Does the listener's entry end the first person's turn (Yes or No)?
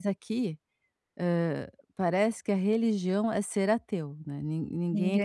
No